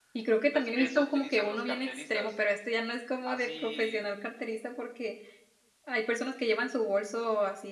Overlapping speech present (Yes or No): Yes